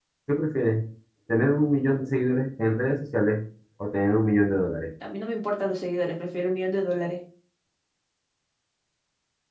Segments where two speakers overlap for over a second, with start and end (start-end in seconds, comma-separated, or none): none